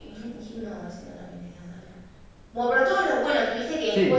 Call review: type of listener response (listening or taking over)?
listening